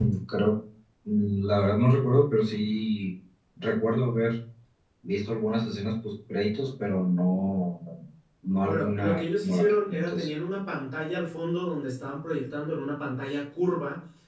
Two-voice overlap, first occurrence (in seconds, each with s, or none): 8.6 s